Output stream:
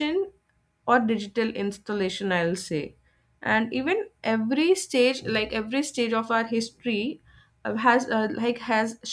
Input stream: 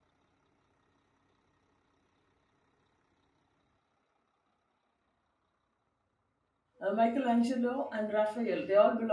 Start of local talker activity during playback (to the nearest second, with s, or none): 7 s